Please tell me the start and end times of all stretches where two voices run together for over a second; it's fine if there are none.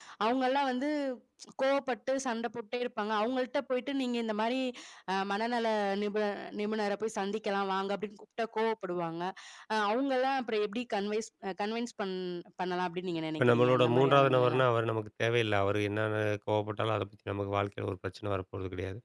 13.4-14.6

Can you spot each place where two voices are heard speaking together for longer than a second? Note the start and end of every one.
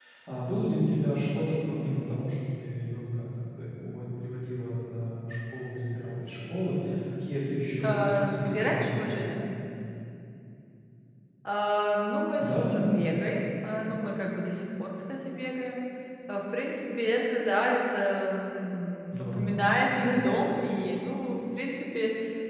7.8-9.2

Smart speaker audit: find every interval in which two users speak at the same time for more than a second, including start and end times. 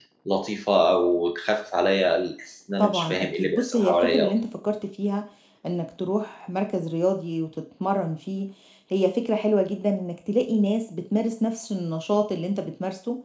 2.8-4.3

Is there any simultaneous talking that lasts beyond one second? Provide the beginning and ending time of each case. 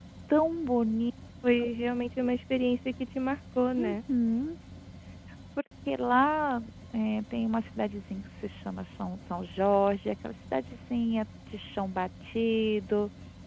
none

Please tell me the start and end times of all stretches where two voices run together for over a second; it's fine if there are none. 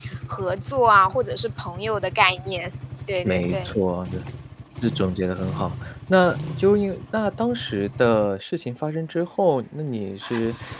none

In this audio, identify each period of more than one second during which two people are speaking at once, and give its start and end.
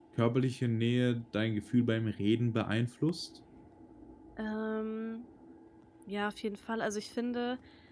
none

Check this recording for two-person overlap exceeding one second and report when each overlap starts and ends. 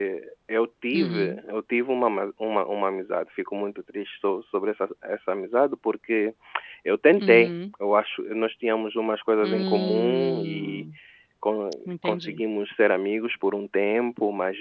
9.4-10.8

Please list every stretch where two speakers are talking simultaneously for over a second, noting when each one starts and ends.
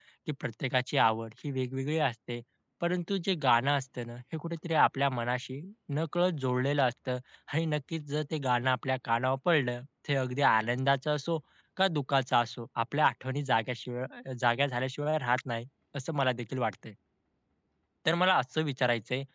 none

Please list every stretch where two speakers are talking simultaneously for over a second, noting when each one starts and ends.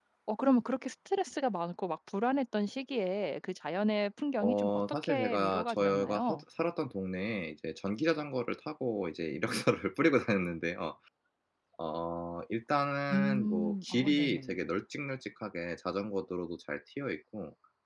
4.4-6.4, 13.1-14.6

